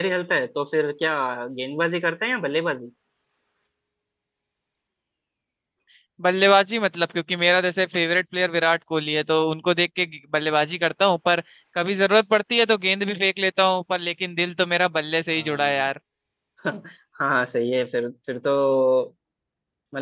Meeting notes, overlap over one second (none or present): none